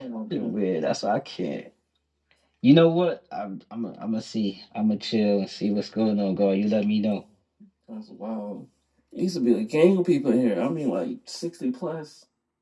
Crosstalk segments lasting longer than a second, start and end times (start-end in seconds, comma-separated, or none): none